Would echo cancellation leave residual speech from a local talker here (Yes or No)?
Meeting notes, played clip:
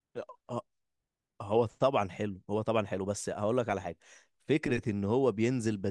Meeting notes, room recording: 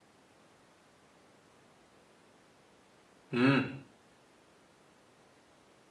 Yes